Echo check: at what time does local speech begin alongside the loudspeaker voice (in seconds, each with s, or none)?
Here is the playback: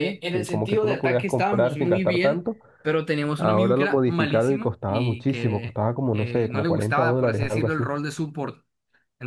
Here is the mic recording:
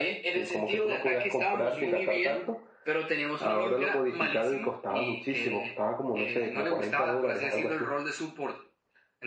none